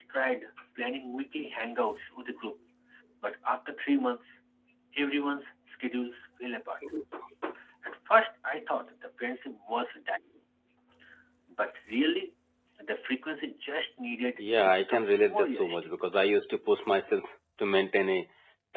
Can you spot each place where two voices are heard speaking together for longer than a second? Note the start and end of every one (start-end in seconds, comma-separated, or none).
14.4-15.9